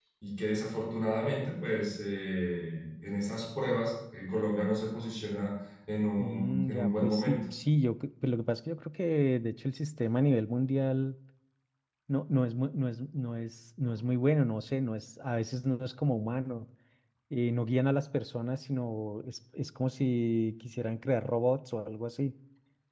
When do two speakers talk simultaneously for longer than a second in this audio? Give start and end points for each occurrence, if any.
6.2-7.4

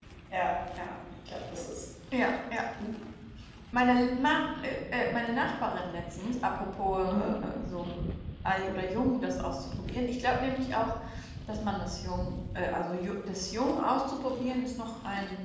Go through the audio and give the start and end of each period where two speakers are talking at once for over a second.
none

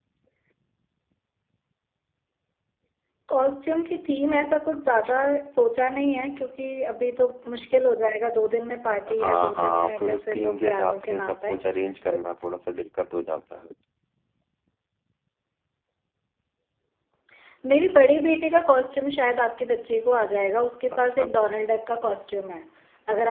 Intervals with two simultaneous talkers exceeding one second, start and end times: 9.1-11.5

